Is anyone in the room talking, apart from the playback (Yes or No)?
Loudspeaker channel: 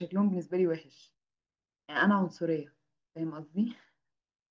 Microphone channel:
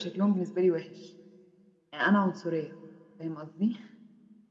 No